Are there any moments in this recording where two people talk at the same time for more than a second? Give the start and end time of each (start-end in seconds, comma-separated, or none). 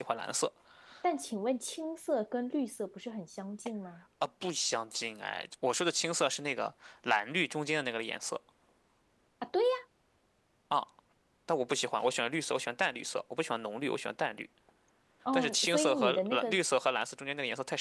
15.3-16.6